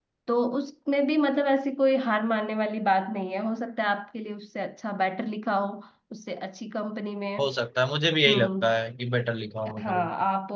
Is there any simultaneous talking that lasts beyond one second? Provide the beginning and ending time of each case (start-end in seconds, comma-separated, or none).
none